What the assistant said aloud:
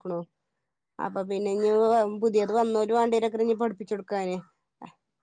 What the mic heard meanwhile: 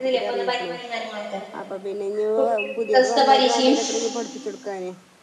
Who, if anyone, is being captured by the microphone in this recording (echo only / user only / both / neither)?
both